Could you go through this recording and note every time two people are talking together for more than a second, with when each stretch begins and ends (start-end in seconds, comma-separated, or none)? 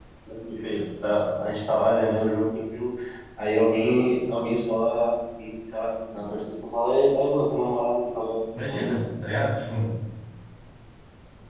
none